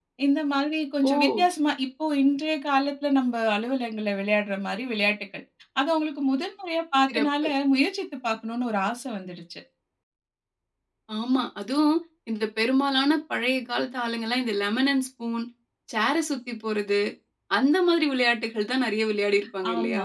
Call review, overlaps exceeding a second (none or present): none